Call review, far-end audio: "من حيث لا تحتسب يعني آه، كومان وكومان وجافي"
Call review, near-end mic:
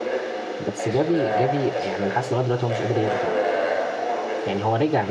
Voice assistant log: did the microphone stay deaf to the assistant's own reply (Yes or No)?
No